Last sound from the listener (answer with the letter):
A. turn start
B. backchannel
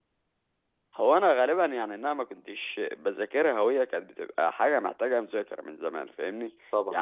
B